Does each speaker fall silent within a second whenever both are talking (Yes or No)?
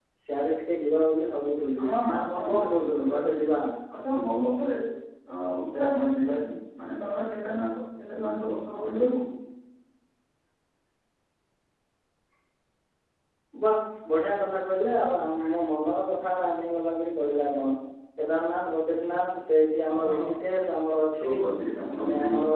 No